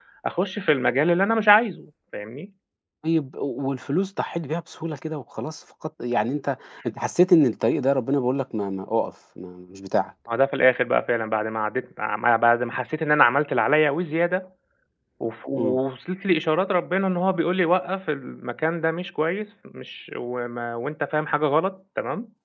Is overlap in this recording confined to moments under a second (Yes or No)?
Yes